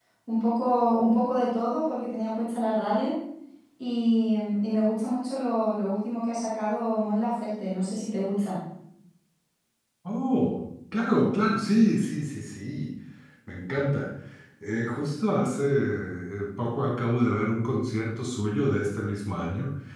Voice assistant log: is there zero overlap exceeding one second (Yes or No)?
Yes